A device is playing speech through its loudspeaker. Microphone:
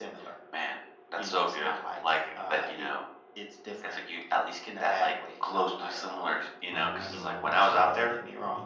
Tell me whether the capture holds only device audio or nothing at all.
No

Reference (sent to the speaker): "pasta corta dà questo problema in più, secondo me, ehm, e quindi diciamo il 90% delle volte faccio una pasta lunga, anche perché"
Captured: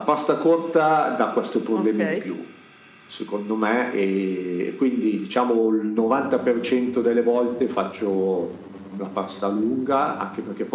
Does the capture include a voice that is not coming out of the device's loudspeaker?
Yes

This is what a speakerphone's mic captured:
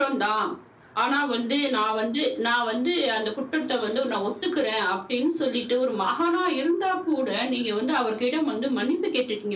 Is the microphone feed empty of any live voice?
Yes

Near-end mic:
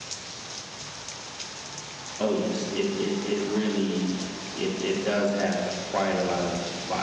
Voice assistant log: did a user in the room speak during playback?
No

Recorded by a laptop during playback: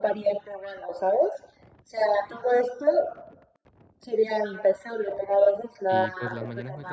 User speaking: Yes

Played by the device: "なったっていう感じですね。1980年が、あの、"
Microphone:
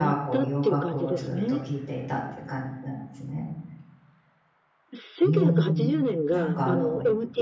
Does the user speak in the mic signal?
Yes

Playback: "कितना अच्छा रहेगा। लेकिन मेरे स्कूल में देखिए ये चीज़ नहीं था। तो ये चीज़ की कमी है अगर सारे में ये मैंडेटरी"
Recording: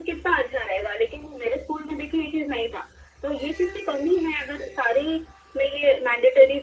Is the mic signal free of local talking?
Yes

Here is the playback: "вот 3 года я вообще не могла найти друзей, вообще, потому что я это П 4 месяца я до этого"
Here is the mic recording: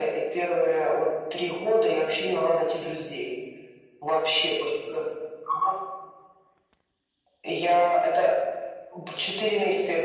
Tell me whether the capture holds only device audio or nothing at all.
Yes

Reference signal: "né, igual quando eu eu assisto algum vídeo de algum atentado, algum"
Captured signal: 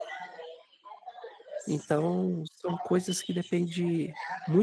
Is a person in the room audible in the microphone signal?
Yes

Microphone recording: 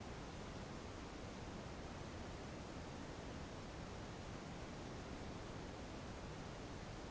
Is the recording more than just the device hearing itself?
No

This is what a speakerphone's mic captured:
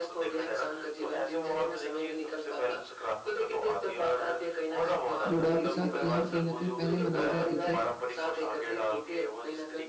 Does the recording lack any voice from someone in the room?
No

